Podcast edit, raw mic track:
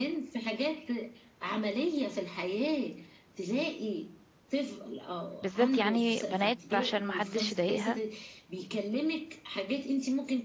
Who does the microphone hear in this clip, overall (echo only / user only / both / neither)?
both